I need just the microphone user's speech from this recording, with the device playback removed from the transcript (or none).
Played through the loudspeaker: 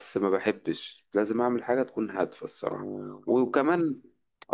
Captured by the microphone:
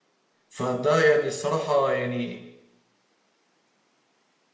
فده يعني الصراحه يعني